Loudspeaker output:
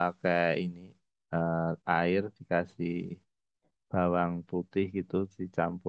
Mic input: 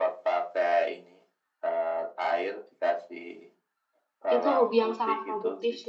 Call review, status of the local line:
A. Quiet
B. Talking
B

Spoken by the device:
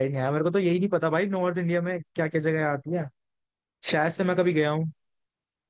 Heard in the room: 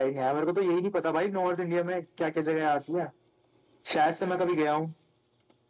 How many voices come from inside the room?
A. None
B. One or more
A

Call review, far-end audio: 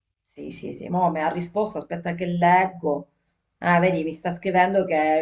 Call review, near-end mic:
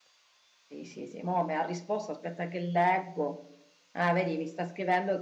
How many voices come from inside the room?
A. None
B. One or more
A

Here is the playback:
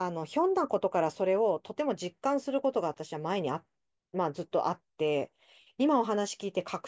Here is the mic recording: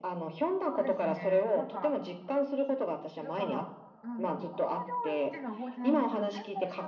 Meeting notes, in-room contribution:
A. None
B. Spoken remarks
B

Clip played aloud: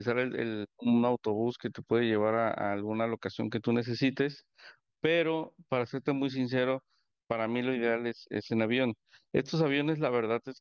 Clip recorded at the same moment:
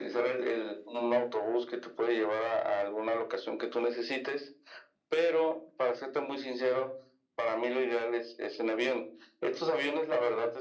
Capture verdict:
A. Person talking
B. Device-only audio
B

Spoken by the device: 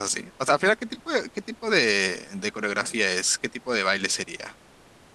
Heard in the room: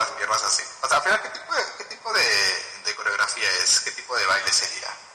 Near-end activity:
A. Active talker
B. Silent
B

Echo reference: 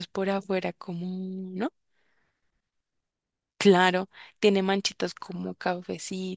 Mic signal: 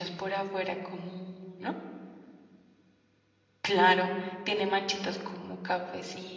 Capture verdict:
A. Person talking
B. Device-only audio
B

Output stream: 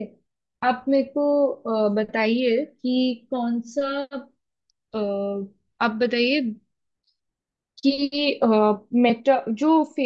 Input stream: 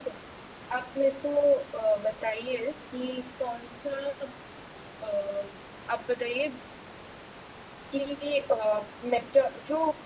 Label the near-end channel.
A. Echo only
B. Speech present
A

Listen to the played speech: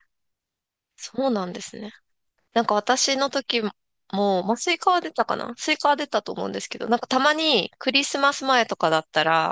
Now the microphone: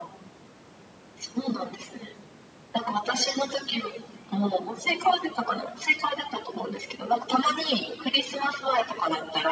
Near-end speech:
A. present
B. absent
B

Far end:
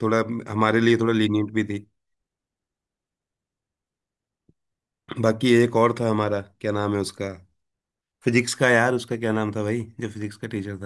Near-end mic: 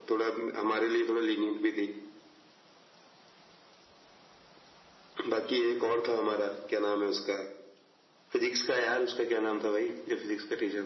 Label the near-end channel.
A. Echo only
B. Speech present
A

